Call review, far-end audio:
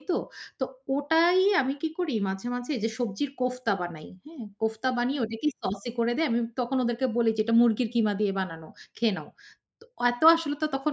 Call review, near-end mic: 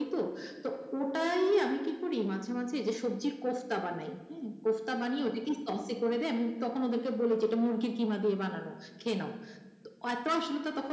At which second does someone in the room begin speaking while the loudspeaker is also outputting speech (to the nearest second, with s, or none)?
none